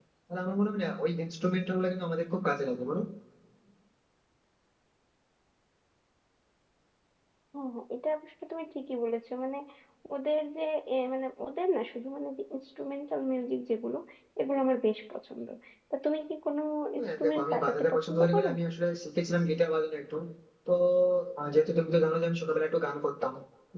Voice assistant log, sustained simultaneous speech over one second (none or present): present